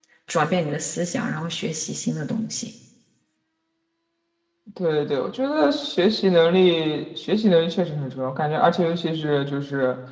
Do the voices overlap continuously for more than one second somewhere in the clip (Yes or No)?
No